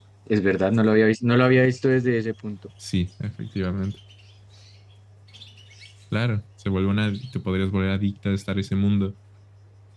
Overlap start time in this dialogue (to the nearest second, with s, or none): none